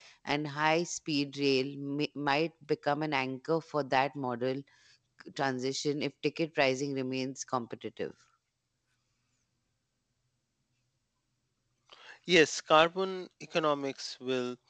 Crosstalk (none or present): none